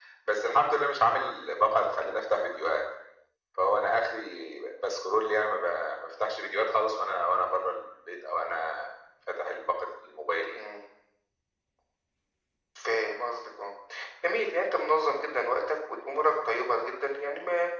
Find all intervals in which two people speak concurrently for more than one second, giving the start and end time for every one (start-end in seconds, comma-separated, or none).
none